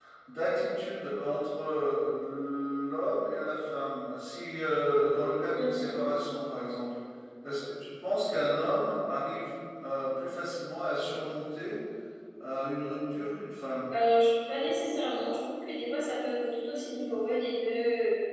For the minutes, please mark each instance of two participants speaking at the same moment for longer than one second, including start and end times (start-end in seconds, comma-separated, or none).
none